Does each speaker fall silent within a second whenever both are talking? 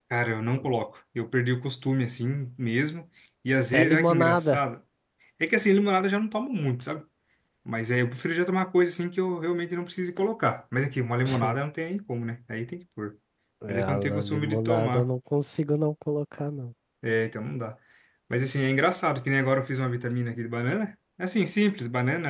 No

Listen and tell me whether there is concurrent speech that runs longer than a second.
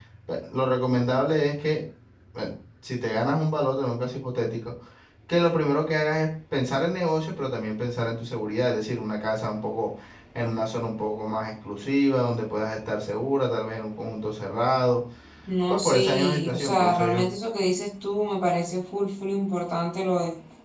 Yes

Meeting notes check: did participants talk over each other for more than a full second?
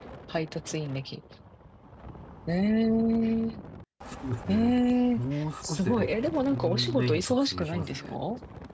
Yes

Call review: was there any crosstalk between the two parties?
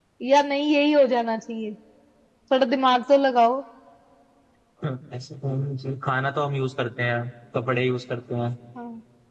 No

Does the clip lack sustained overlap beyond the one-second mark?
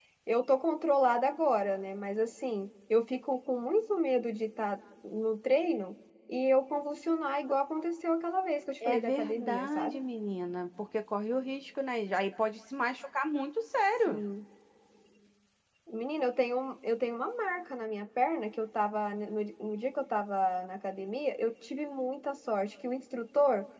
No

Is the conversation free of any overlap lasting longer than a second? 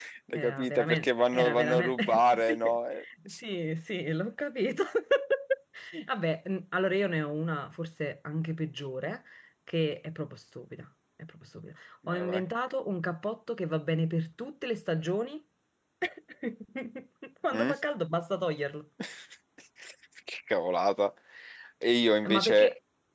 No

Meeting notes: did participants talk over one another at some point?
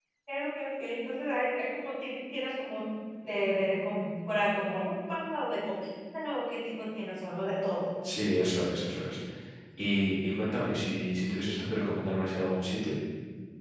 No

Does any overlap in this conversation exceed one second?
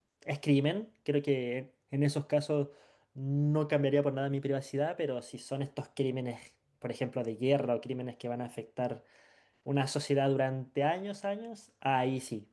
No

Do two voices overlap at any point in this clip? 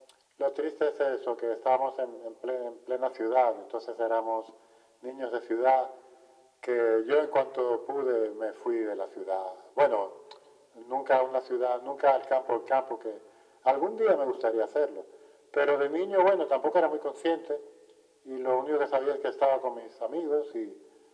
No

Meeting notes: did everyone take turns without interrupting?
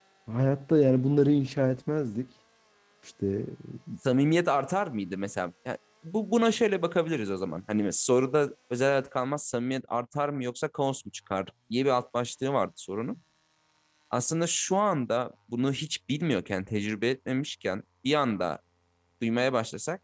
Yes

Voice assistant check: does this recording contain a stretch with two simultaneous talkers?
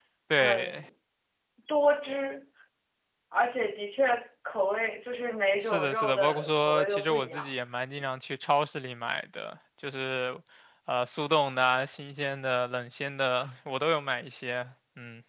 Yes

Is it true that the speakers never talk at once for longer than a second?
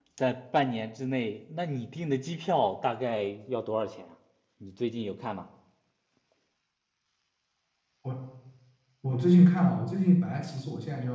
Yes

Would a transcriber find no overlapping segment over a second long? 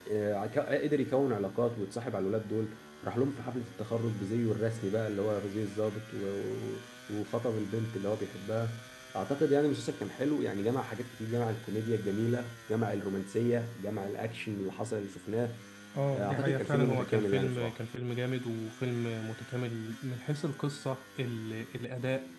No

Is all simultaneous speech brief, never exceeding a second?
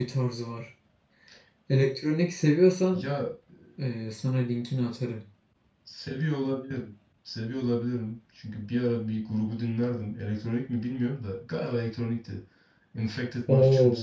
Yes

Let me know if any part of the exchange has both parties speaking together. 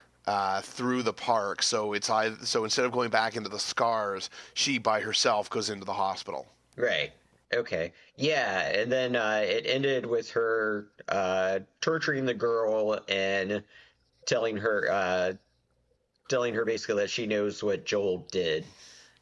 No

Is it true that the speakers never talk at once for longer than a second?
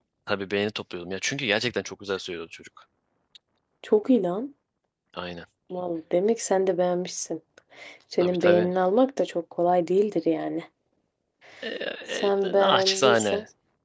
No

